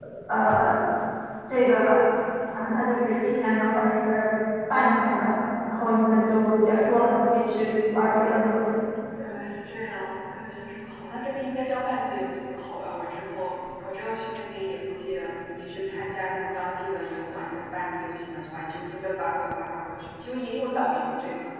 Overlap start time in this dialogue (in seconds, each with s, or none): none